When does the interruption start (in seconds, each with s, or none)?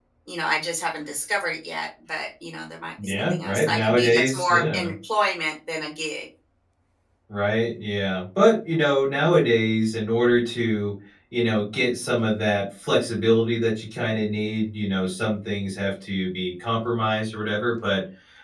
3.0 s